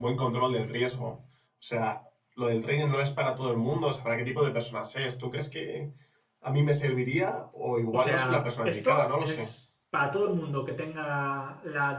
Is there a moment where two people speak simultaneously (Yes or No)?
Yes